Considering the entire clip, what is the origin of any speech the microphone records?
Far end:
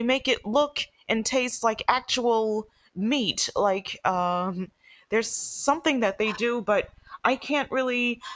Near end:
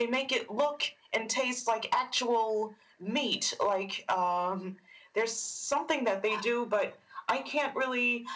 echo only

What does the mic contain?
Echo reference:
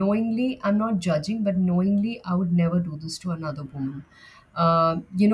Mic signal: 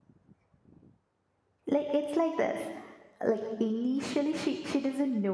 user only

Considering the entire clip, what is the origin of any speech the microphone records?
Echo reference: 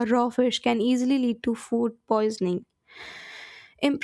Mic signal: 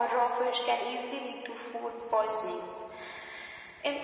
echo only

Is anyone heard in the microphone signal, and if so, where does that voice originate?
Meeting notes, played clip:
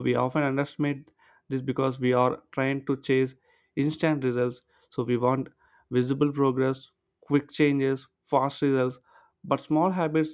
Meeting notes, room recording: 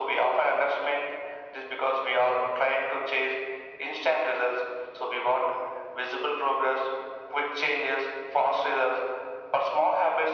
echo only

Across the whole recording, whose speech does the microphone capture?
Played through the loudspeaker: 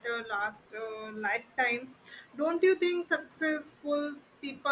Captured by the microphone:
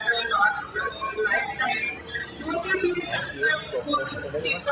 both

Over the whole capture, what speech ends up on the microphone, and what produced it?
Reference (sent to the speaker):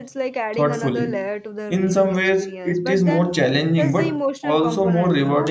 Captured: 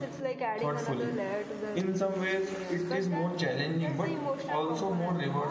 echo only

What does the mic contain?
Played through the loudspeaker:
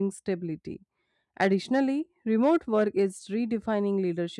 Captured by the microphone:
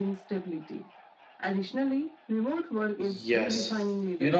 both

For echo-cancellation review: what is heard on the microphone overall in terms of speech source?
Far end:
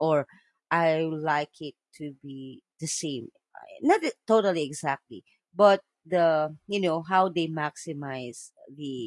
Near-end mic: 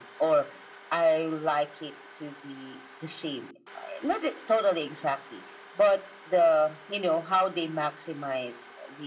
echo only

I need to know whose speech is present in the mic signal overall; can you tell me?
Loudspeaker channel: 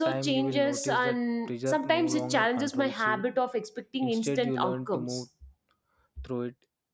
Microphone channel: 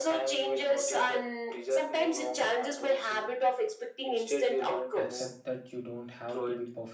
both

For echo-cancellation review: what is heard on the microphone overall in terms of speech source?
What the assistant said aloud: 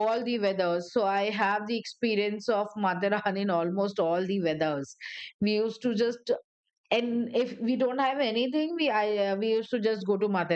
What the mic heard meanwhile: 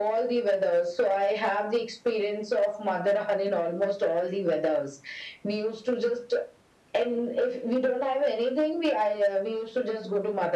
echo only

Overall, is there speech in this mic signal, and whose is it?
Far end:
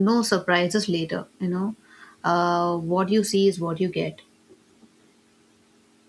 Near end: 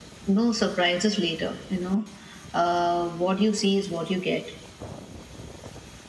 echo only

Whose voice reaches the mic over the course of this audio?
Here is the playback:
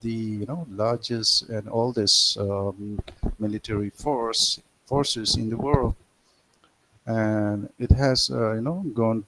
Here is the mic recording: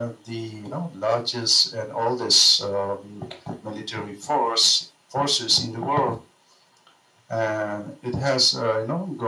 echo only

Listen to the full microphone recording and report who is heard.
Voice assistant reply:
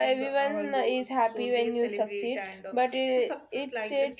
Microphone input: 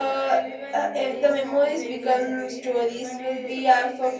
both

